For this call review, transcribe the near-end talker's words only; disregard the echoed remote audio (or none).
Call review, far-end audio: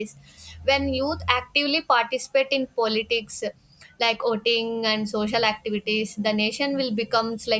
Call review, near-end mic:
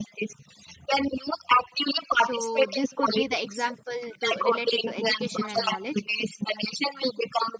so this could be the example to related to education and knowledge